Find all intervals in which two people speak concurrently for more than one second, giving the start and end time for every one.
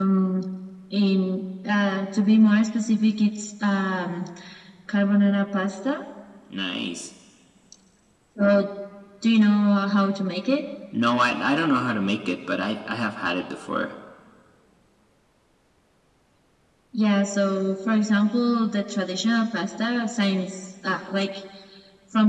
none

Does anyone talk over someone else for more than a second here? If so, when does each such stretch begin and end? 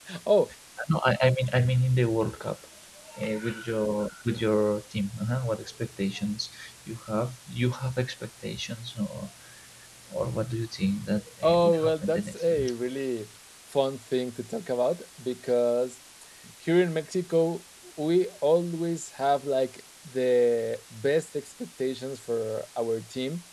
11.4-12.6

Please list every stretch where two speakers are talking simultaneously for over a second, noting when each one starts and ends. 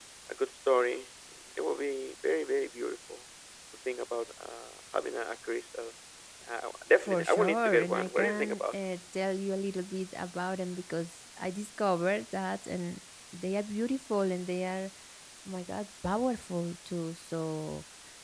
7.0-8.8

